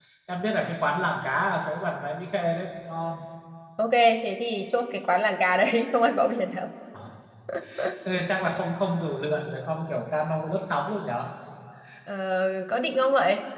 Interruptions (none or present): none